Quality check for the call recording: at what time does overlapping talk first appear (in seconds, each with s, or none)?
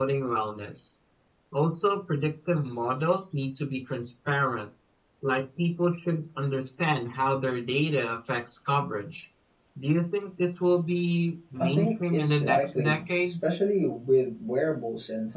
11.6 s